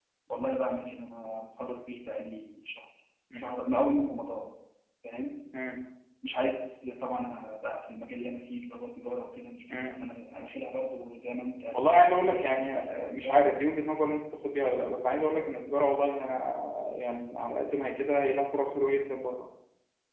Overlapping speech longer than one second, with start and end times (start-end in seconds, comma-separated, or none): 11.7-13.4